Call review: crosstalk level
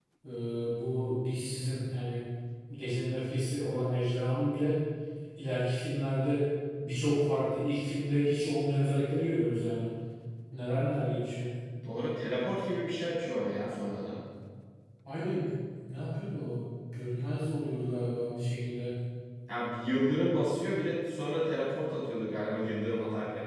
none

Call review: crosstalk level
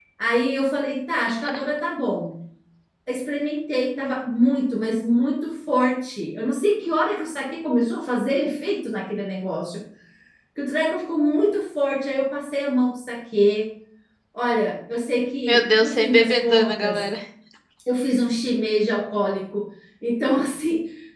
present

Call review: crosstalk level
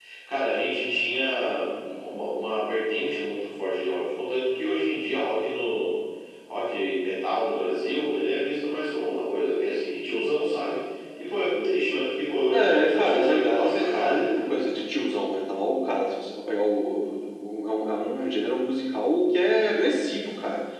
present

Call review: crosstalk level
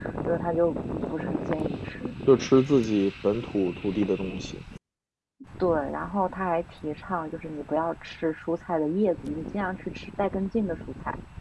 none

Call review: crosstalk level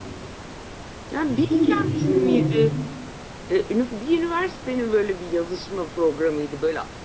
present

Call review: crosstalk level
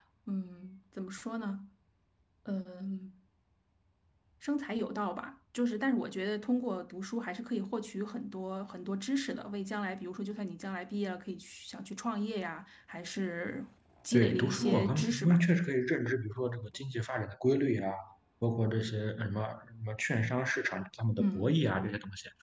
present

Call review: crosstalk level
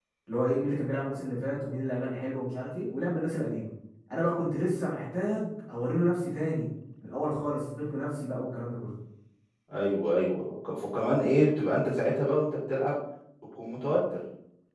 none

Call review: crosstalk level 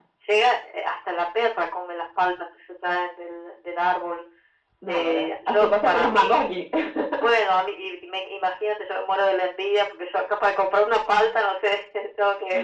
present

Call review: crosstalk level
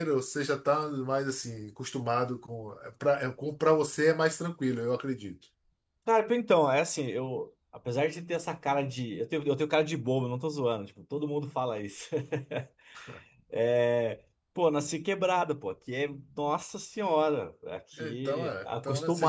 present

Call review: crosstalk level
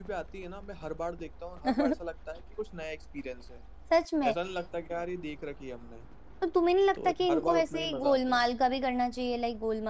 present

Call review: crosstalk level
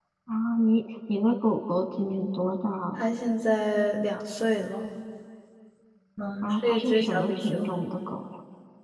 present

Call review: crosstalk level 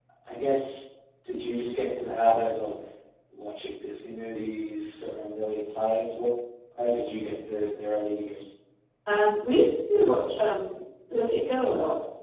none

